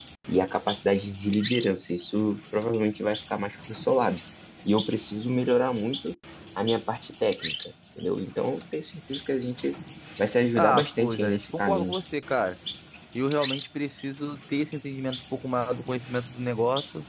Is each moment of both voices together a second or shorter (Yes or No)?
No